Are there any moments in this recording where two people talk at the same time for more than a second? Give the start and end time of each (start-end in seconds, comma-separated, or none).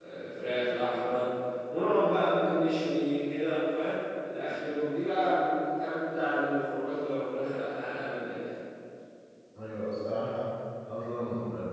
none